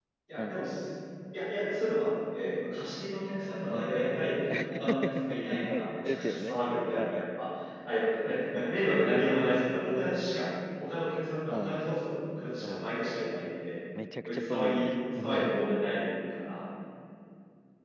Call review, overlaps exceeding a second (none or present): present